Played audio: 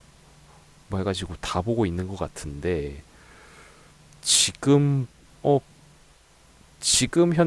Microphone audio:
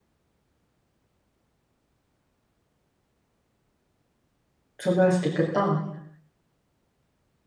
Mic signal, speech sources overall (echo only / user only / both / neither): user only